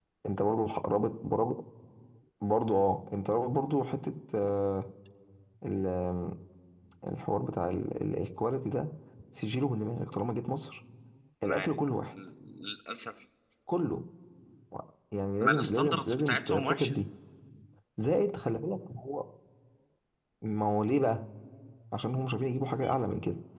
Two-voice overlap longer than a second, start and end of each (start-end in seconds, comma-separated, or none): 15.4-16.9